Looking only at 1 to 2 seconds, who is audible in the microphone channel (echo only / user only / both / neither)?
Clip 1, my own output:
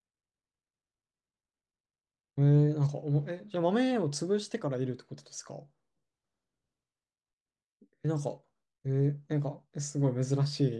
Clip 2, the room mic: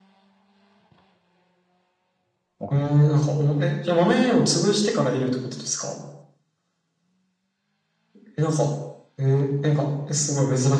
neither